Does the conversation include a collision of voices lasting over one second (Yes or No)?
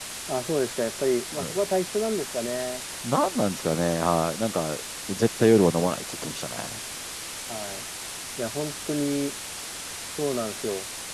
No